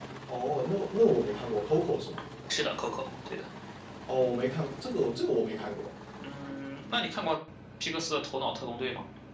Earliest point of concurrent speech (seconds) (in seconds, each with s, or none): none